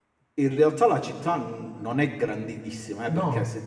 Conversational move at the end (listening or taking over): listening